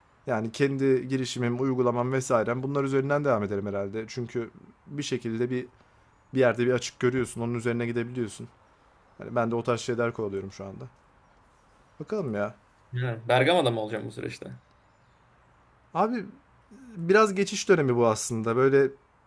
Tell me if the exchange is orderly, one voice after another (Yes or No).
Yes